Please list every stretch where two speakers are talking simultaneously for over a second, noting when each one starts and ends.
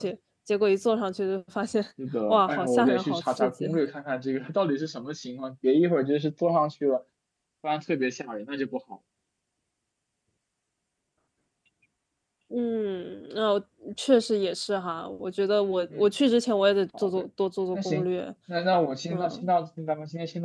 2.3-3.7

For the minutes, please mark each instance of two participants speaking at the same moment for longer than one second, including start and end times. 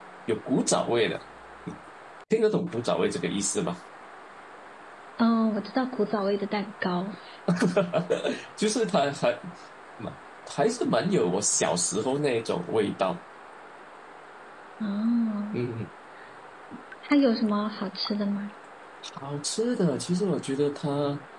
none

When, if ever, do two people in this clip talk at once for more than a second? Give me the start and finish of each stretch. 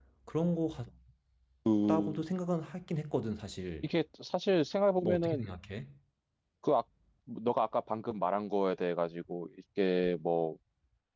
none

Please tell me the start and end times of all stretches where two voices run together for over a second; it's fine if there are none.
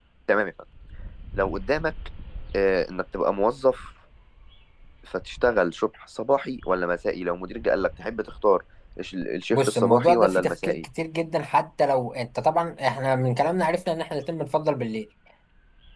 9.5-10.8

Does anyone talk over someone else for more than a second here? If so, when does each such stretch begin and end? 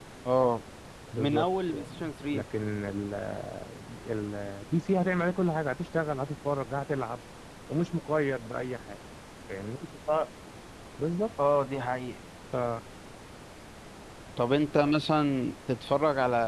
1.2-2.4

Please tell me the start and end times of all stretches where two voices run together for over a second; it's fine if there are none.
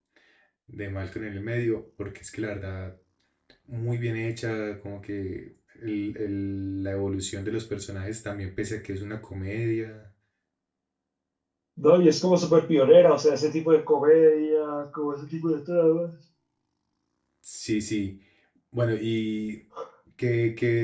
none

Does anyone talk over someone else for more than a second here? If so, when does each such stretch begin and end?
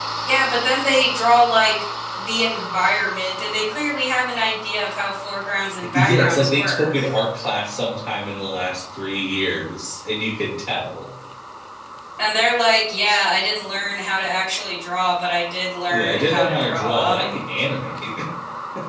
5.9-7.1, 15.9-17.2

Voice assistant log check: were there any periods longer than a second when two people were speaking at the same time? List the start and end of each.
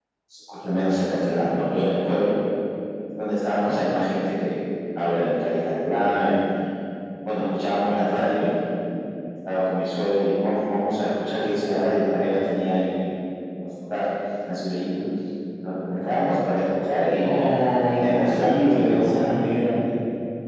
18.0-19.3

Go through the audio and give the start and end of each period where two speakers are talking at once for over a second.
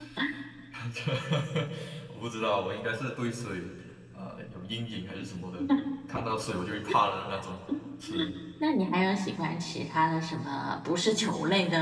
none

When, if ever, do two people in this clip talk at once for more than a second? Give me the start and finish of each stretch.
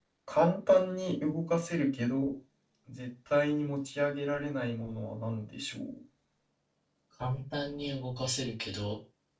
none

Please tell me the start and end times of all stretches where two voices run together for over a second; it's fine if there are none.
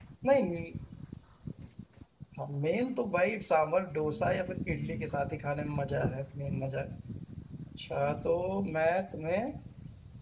none

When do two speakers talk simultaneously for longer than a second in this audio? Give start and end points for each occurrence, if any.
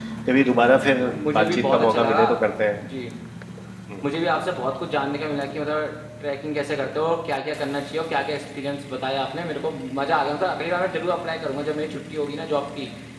1.0-2.2

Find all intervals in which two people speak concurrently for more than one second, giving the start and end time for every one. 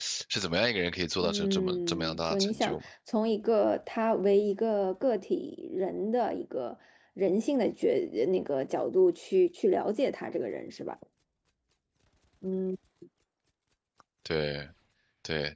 1.2-2.9

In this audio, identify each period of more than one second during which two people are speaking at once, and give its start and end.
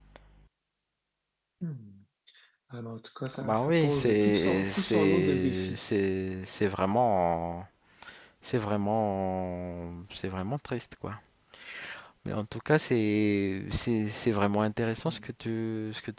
3.4-5.9

